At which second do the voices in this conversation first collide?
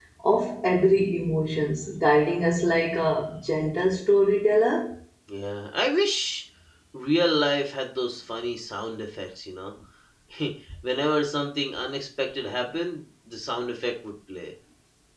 none

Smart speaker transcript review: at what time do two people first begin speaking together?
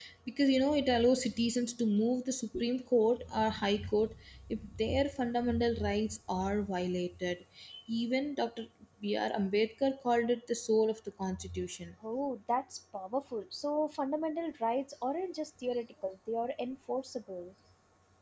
none

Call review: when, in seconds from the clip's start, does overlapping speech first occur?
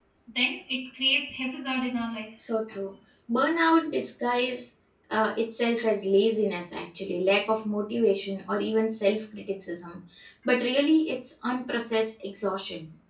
none

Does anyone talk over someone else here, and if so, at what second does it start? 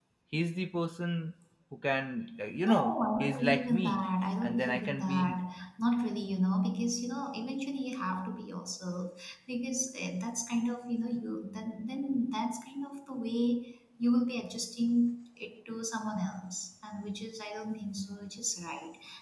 2.6 s

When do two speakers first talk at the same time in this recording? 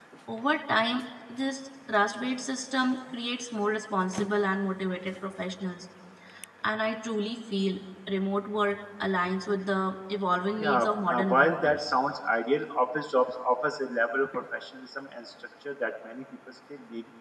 10.6 s

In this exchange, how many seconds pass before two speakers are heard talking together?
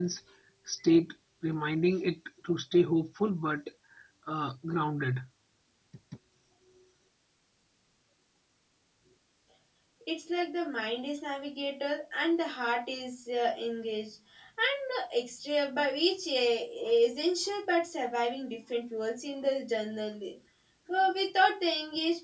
none

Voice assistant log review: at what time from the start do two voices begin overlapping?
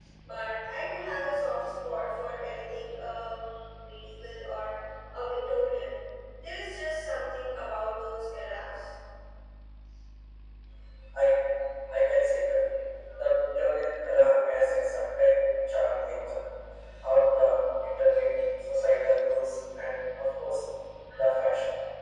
none

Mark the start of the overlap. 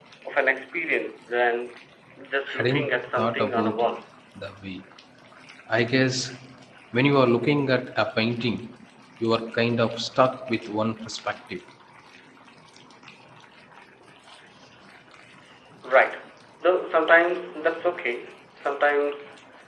2.5 s

